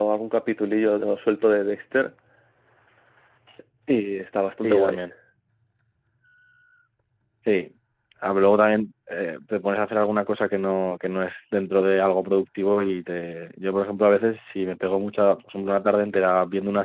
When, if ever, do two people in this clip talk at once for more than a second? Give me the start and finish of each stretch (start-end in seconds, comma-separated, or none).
none